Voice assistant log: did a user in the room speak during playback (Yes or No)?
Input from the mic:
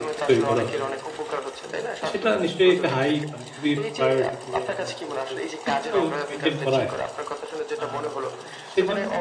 Yes